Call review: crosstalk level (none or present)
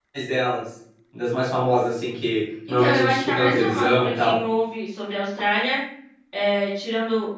present